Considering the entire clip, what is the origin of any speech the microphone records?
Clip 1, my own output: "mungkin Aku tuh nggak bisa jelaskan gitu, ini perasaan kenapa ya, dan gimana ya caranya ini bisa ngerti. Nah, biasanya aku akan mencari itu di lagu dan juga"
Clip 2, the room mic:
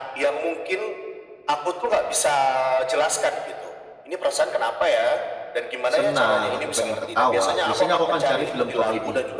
both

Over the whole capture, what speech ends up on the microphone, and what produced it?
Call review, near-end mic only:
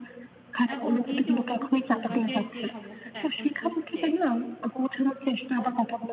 both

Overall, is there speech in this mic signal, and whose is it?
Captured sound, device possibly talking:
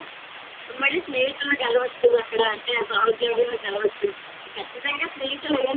echo only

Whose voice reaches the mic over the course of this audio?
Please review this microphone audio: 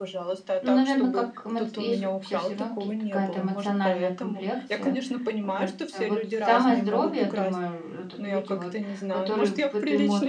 both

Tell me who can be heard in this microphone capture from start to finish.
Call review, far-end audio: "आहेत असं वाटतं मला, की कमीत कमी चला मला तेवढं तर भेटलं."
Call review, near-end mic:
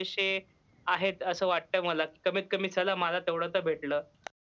echo only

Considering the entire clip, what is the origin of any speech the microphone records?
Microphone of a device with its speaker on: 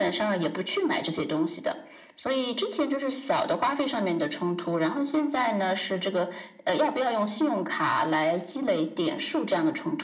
echo only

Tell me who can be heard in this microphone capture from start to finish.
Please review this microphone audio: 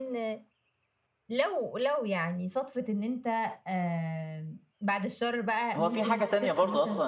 both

